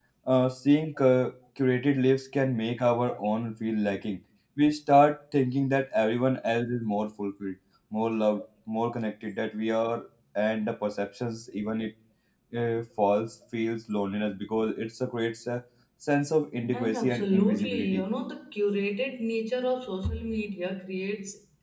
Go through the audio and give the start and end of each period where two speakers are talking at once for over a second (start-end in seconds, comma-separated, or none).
16.7-18.1